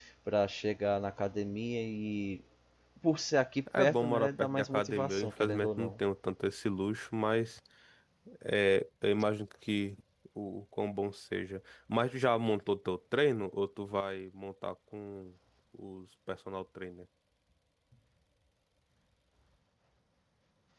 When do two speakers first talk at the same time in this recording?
3.8 s

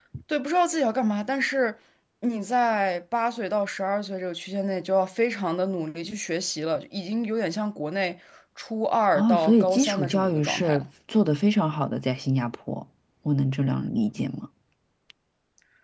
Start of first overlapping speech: 9.1 s

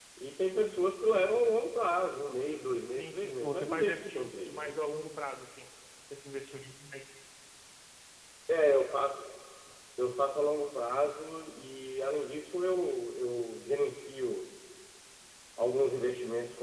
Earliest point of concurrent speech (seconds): 2.9 s

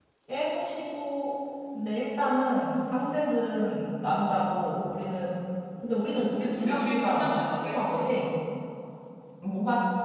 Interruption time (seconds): 6.6 s

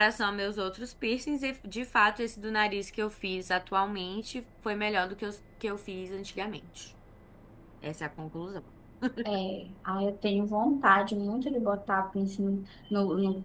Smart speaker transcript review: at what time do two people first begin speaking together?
none

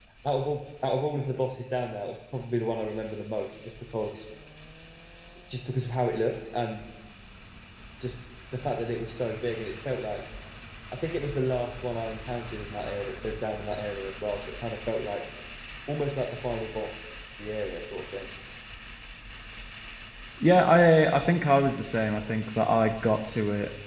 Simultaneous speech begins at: none

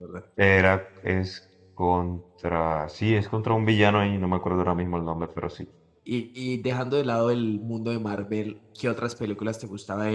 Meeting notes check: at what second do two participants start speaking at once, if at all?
none

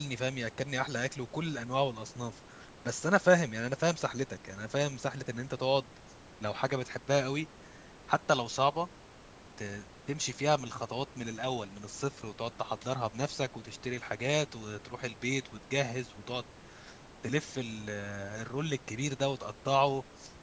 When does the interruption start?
none

